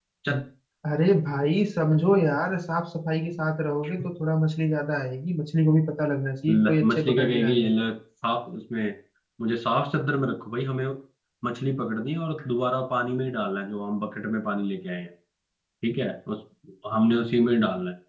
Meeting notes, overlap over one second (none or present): present